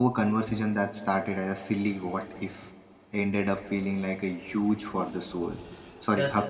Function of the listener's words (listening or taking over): taking over